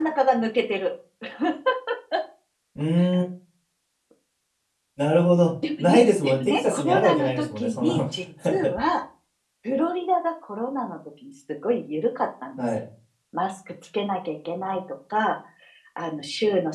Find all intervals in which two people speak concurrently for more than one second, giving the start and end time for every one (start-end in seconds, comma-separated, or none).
5.9-8.0